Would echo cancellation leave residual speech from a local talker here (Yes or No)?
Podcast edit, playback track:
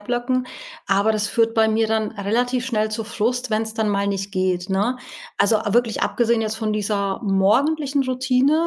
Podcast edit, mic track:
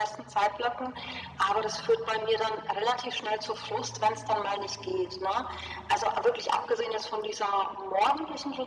No